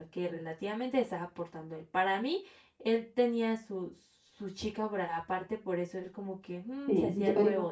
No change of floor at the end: No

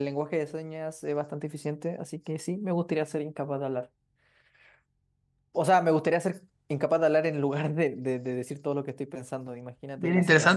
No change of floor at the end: No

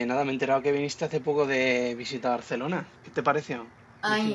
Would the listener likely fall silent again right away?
No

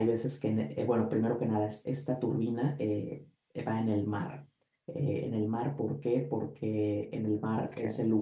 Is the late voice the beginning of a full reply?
No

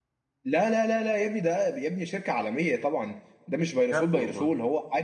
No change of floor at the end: Yes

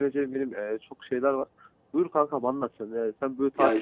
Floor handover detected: No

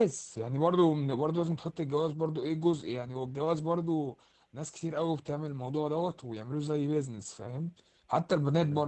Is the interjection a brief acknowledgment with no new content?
Yes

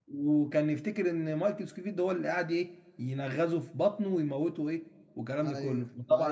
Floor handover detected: Yes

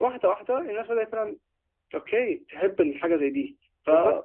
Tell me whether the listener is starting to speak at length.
Yes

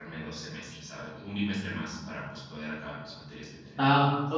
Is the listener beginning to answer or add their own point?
Yes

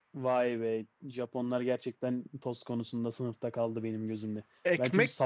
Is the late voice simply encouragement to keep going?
No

